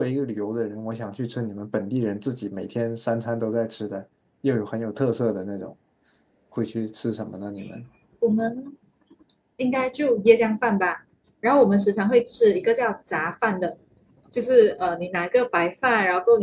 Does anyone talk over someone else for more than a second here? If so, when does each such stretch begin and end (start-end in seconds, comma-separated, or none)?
none